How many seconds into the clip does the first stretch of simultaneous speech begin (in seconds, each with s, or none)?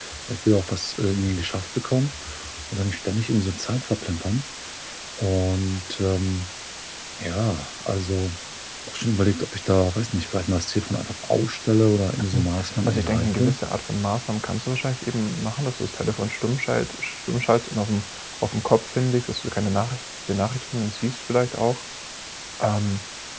12.3 s